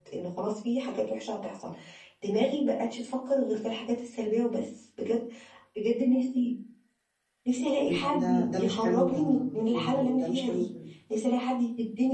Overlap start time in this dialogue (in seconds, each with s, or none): 7.9 s